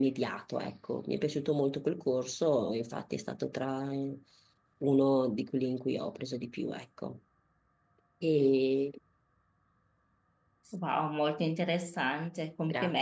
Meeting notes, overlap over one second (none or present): none